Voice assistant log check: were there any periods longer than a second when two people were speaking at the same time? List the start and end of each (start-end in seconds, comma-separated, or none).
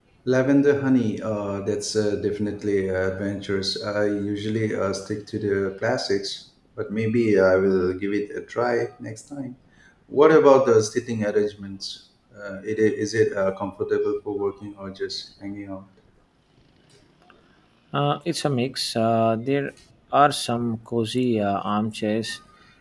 none